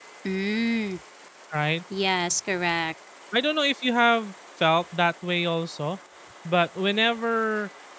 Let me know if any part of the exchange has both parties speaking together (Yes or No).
No